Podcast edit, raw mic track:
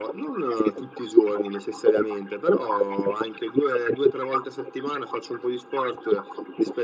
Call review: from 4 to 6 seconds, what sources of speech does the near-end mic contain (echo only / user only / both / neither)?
echo only